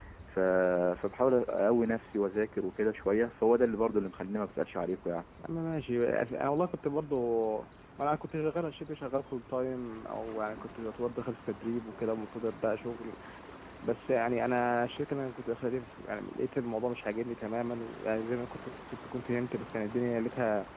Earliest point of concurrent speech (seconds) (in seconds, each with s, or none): none